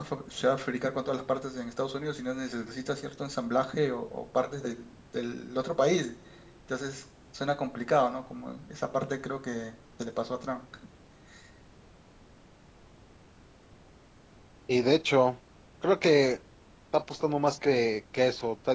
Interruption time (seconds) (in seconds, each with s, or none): none